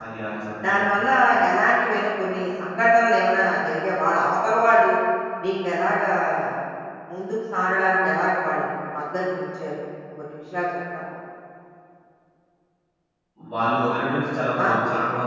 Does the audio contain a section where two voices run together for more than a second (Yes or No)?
No